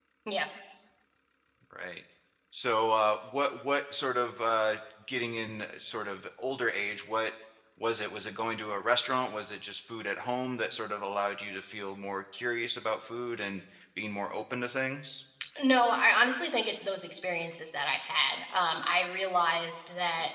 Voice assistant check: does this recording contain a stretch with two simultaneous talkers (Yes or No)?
No